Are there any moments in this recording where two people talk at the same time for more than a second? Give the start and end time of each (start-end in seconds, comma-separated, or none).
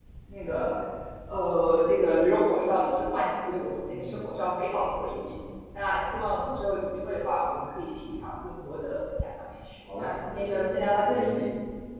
10.0-11.4